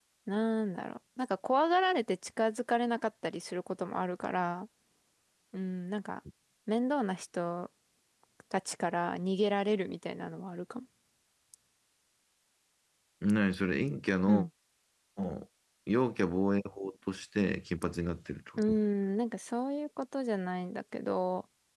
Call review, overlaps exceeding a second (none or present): none